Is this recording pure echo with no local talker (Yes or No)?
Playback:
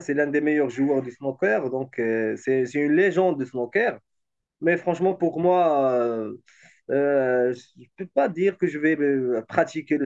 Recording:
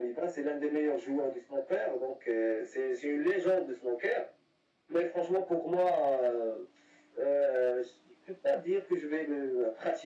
Yes